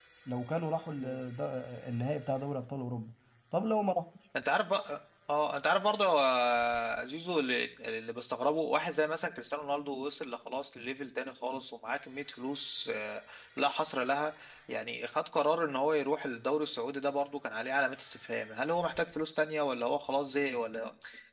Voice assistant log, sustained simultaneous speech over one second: none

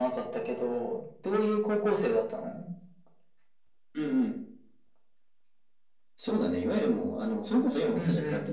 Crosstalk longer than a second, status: none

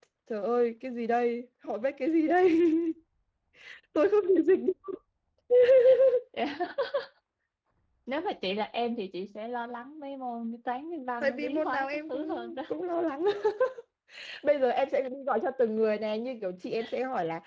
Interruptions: present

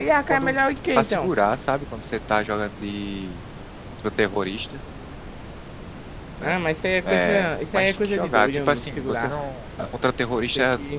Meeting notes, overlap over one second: present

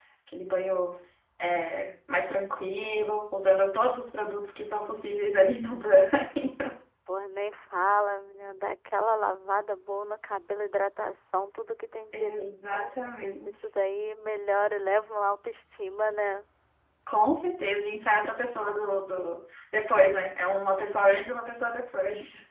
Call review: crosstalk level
present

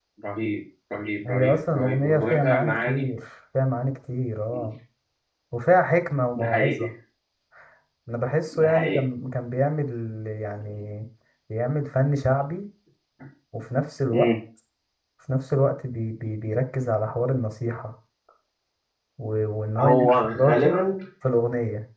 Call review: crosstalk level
present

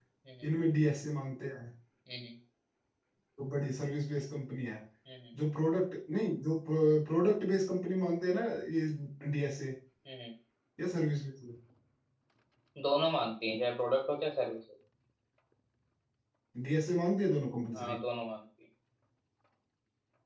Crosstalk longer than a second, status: none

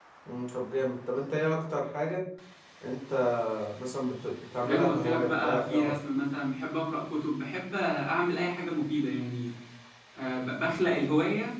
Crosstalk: present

